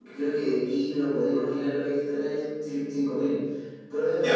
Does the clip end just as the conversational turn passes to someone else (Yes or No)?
Yes